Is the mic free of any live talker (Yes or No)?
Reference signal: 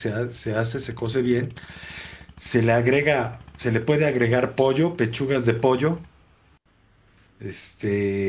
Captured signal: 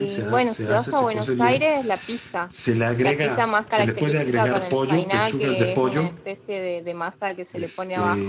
No